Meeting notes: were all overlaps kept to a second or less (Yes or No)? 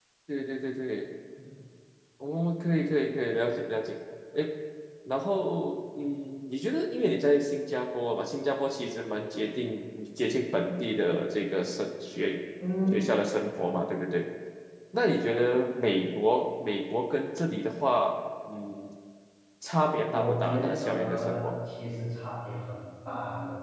No